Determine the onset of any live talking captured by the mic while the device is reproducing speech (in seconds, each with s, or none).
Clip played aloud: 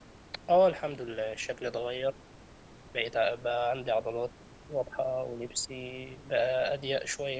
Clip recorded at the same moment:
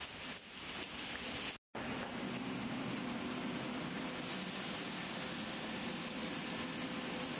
none